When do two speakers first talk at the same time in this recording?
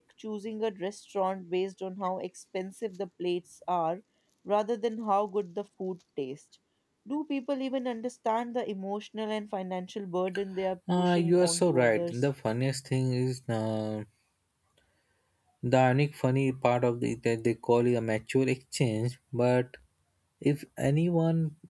10.9 s

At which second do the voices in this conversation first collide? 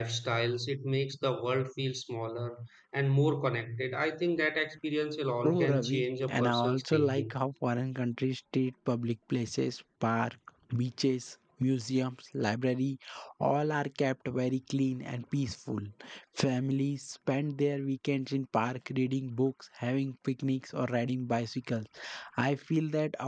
5.4 s

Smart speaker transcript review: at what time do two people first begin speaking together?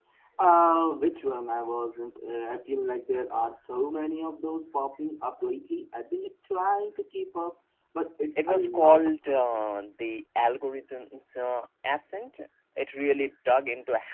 8.4 s

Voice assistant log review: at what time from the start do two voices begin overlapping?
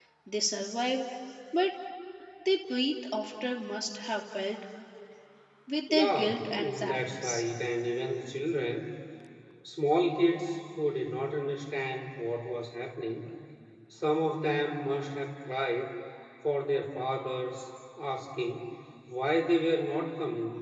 5.9 s

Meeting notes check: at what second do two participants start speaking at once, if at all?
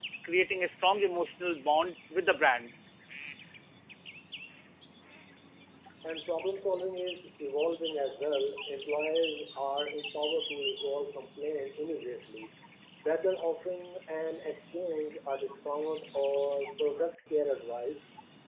none

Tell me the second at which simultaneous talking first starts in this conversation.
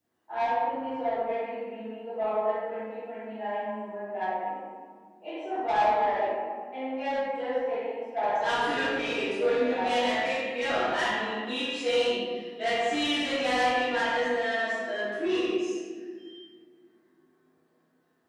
8.3 s

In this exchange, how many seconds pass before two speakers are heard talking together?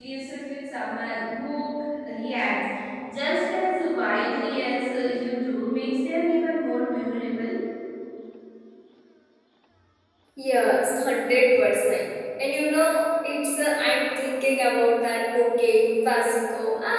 none

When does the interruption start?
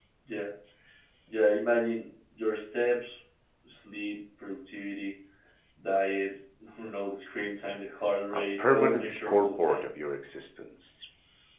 8.3 s

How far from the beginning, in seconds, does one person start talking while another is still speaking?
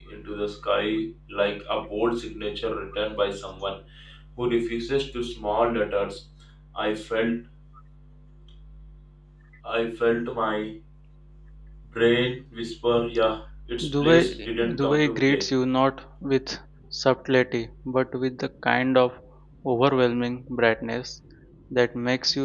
13.8 s

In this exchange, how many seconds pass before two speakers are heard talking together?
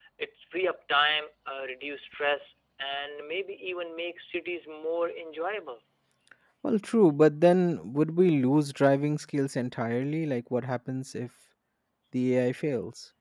none

